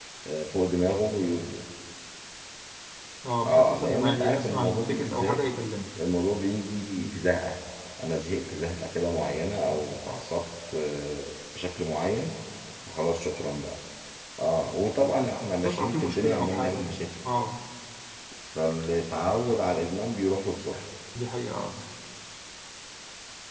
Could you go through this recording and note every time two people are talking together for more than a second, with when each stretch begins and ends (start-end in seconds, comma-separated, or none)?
3.5-5.4, 15.6-16.9